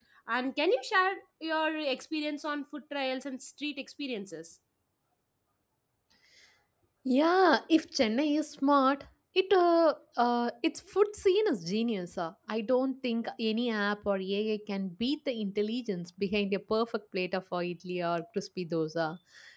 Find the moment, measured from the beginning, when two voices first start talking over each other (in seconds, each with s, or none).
none